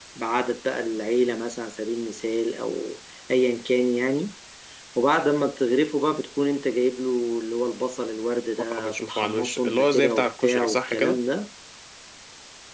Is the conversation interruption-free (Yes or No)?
No